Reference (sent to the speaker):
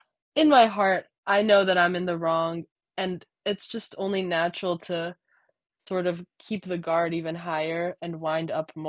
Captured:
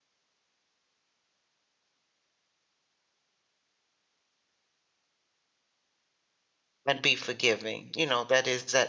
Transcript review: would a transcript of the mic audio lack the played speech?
Yes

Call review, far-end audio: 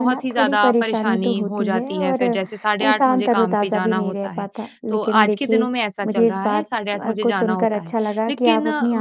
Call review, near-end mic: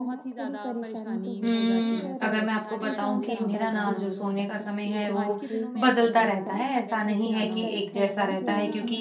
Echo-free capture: No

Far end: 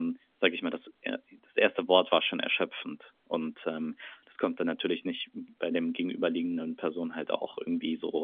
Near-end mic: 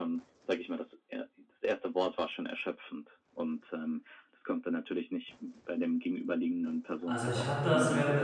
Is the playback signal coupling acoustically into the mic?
Yes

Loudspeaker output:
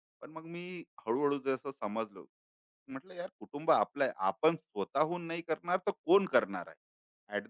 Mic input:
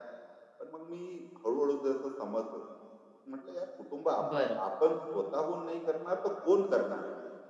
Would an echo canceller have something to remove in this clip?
Yes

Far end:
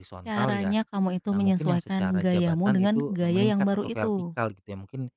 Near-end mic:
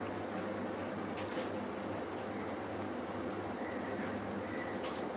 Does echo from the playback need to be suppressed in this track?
No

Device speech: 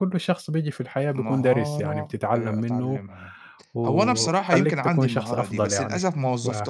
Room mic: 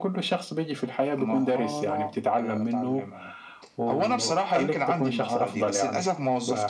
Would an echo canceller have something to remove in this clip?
Yes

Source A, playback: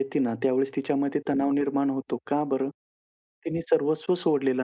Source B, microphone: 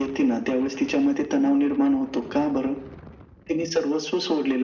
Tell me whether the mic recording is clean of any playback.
No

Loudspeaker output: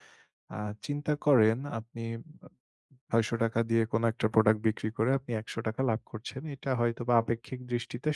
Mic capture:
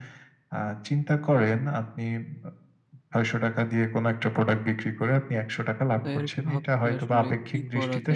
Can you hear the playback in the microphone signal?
Yes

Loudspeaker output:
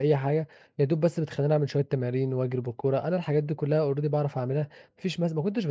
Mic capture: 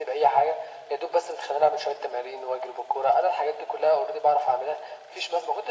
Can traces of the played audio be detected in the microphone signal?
Yes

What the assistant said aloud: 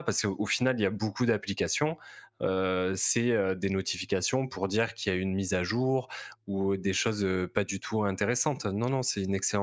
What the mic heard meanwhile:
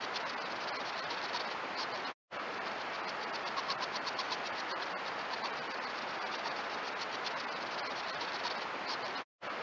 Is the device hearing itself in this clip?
No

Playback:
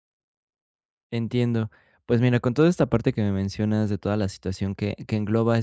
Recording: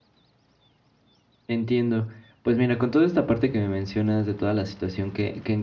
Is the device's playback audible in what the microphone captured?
Yes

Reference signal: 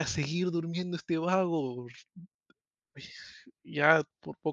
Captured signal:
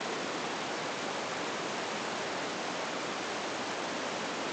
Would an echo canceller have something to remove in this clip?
No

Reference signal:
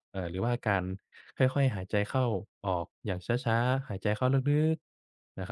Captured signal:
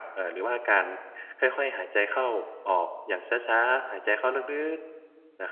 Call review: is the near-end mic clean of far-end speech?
No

